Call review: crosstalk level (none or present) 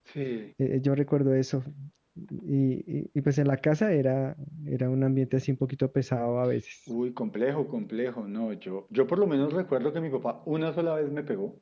none